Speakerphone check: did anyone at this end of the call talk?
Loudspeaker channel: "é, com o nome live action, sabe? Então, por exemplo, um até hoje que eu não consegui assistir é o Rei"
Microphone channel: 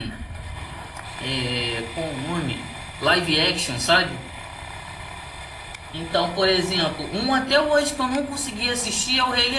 No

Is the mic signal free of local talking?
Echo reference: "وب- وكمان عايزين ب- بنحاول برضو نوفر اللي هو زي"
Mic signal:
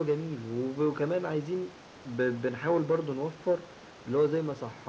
Yes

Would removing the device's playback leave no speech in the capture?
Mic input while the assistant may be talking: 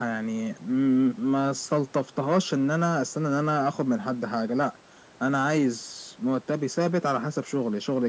Yes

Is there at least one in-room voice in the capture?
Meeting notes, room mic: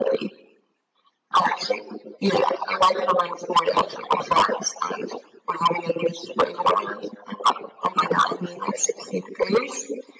No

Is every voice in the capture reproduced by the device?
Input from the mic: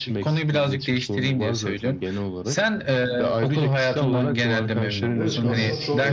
No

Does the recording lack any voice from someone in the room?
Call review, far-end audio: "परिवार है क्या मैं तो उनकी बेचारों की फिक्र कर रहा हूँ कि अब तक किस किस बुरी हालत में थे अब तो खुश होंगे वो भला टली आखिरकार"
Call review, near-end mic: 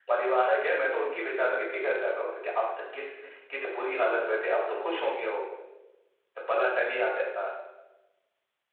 Yes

